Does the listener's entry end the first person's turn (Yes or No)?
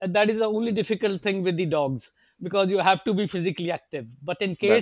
No